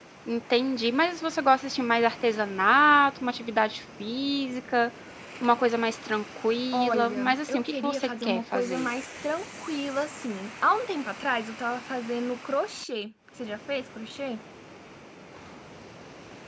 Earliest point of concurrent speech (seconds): 6.7 s

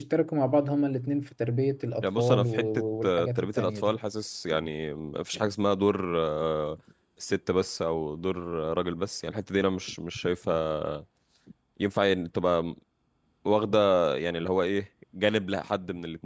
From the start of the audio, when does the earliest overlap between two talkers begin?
2.0 s

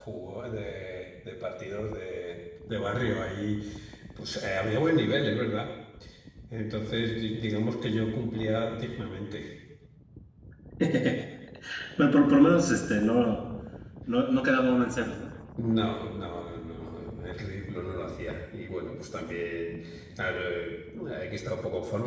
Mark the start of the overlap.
none

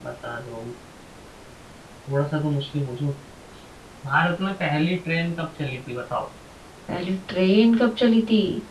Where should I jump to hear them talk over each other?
none

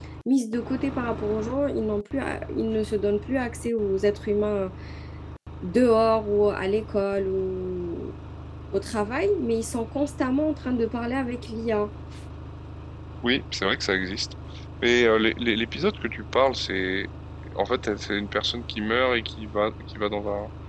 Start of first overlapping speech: none

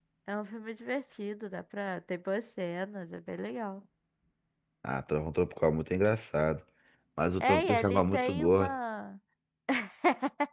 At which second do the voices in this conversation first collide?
7.4 s

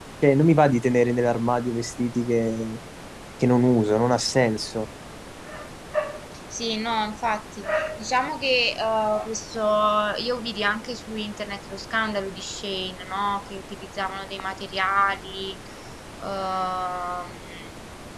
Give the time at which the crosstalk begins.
none

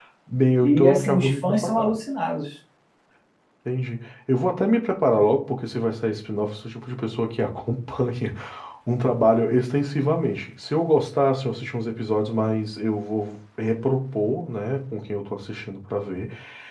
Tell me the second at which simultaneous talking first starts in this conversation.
0.6 s

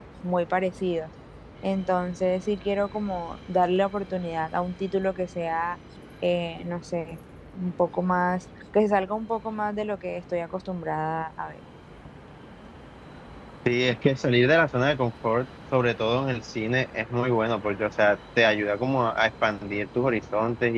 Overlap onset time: none

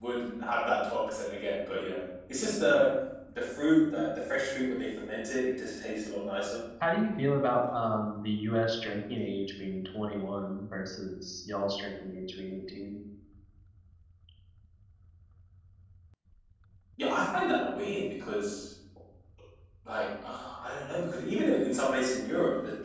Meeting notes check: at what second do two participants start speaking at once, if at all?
none

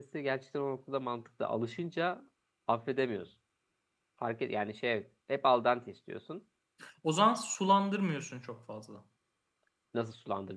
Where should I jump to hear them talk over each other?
none

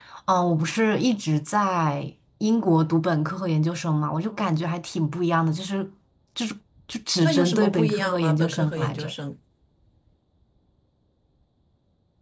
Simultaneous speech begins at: 7.2 s

